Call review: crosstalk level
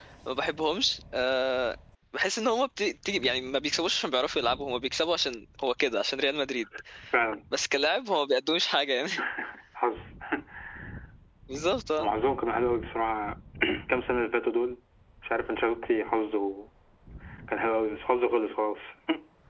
none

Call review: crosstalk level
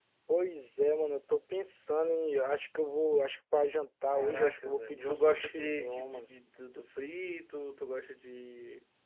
present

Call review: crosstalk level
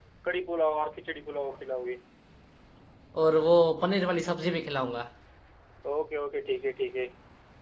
none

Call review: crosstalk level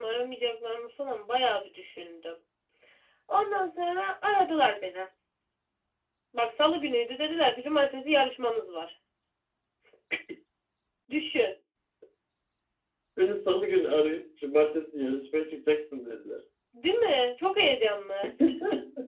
none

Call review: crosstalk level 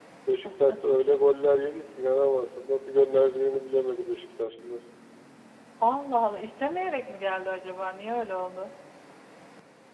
none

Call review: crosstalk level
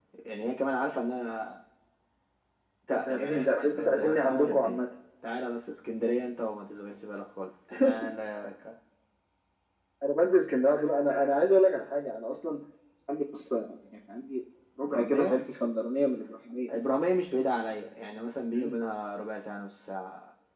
present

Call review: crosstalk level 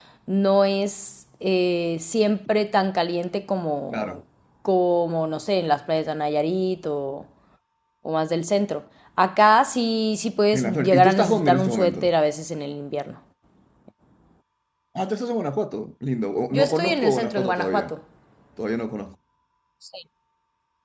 present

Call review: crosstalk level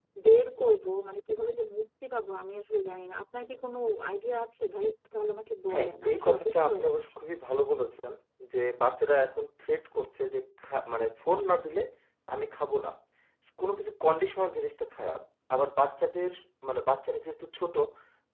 present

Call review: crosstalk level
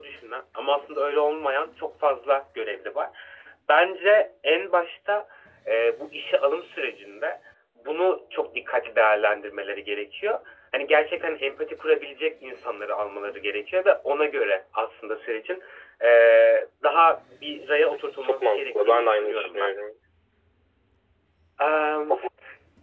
present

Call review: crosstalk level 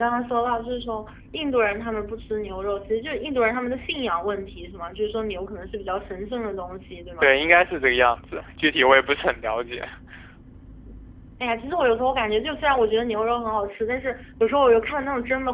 none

